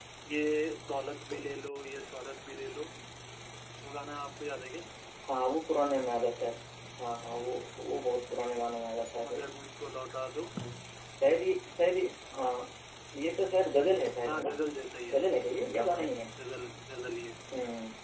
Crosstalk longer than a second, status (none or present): none